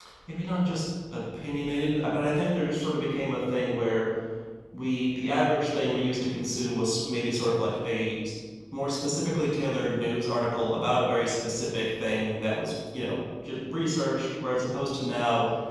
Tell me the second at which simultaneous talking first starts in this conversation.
none

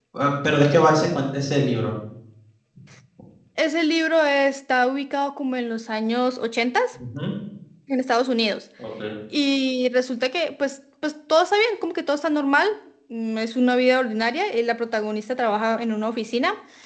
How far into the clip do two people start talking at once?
none

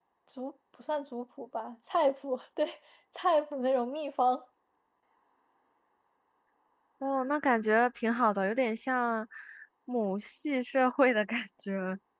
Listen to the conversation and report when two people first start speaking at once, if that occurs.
none

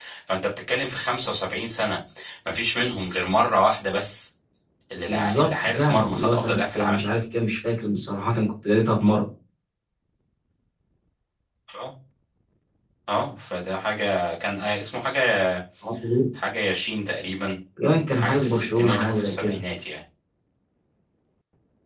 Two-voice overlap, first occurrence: 5.1 s

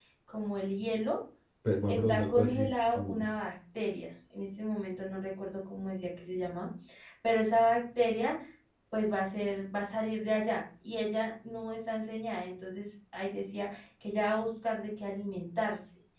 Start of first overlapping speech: 1.9 s

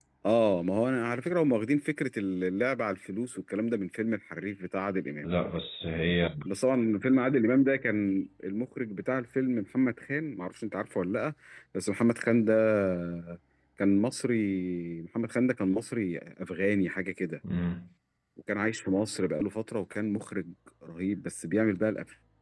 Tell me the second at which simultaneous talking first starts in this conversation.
none

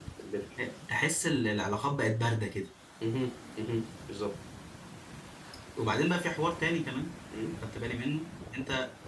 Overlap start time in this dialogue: none

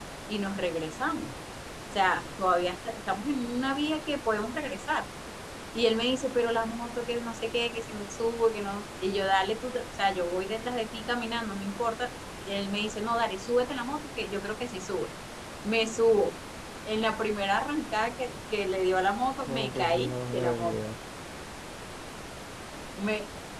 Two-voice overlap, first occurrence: 19.5 s

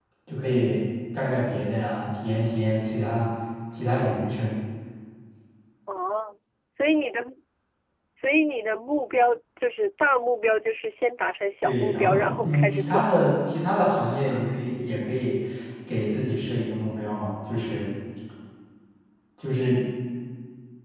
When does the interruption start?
11.6 s

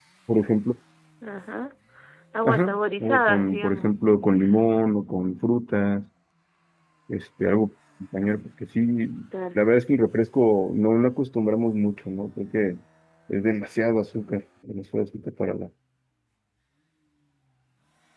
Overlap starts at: 2.4 s

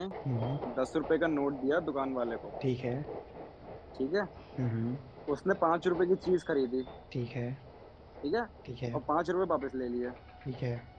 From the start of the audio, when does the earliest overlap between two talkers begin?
none

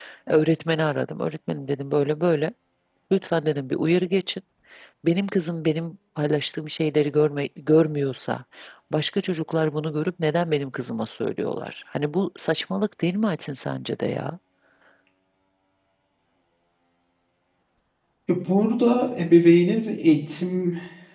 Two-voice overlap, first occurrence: none

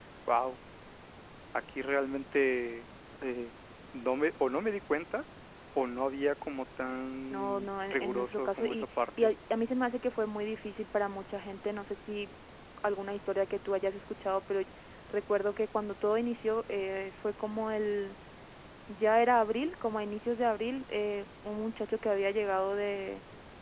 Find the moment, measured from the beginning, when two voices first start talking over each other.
7.3 s

